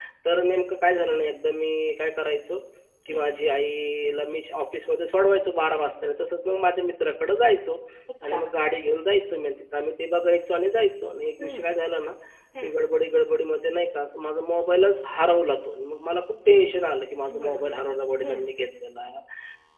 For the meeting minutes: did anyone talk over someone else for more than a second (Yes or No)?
No